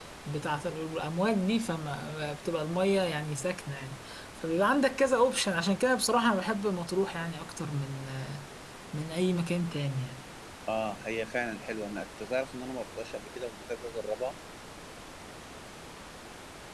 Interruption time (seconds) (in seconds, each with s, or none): none